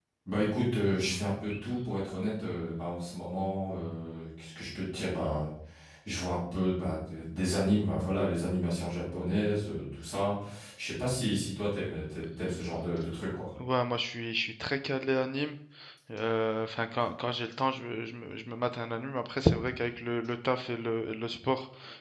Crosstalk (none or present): none